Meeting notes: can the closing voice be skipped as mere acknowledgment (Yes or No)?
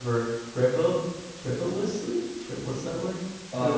No